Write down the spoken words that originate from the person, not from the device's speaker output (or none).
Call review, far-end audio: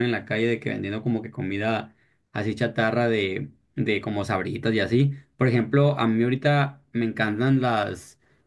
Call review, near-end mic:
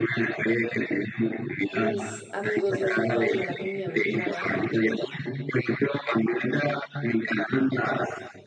mis amigos les encanta la comida mexicana